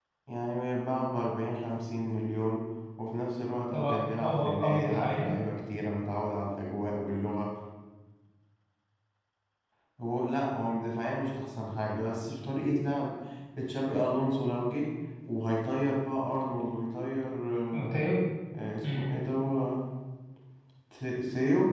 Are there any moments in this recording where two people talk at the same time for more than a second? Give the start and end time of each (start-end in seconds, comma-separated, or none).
3.7-5.4